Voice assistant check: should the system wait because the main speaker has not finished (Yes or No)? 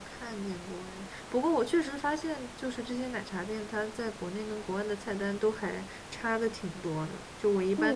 No